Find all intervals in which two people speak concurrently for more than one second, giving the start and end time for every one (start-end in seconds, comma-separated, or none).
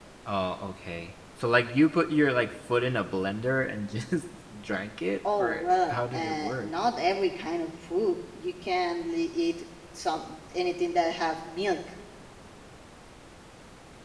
5.4-6.7